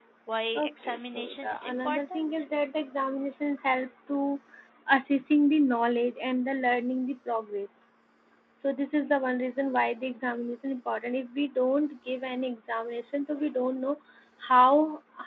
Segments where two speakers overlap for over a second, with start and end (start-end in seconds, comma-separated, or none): 0.6-2.2